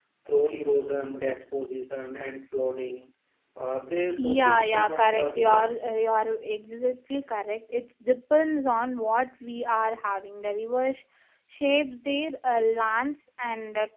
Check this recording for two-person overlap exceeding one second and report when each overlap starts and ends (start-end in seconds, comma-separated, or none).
4.2-5.9